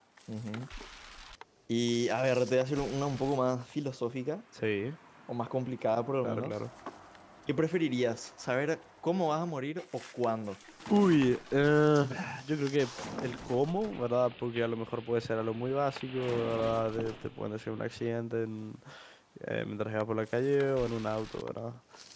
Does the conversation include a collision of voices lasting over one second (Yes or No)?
No